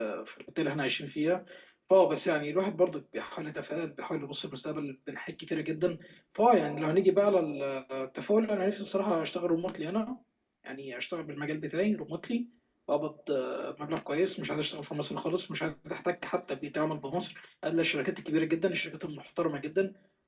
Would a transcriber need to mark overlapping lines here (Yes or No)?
No